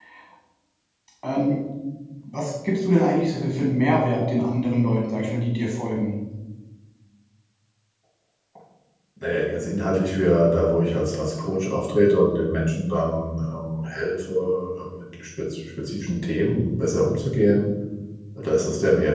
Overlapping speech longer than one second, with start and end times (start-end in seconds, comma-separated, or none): none